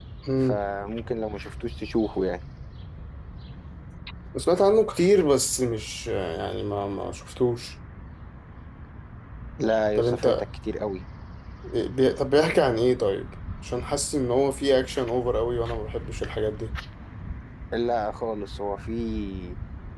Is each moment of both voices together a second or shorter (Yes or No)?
Yes